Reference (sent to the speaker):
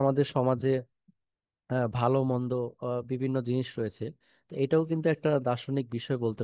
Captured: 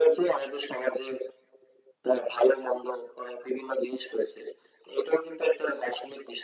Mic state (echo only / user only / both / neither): echo only